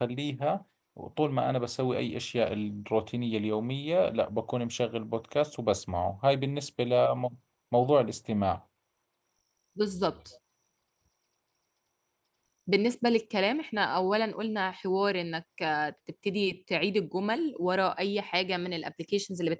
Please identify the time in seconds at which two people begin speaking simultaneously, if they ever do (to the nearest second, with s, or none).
none